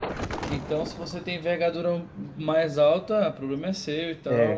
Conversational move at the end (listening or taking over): taking over